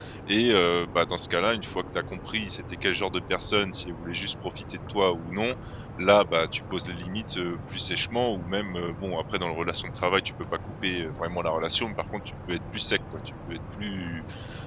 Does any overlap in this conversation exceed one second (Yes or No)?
No